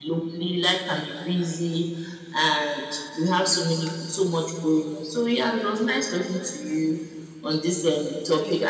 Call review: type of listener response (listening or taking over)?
listening